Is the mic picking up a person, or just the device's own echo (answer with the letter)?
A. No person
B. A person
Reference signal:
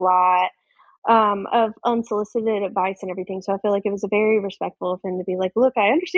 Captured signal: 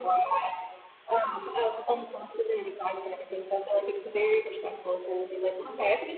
A